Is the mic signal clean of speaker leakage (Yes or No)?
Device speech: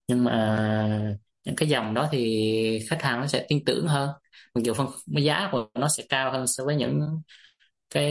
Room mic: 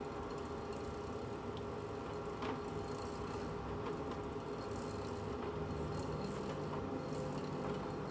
Yes